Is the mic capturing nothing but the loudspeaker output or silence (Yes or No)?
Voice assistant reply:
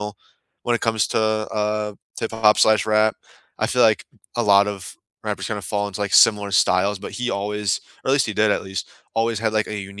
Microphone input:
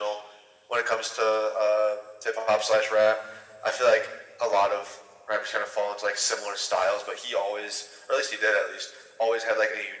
Yes